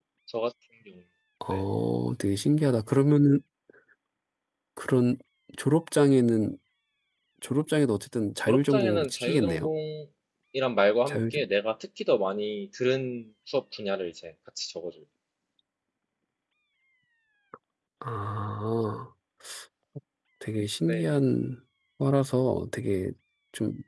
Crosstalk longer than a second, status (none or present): present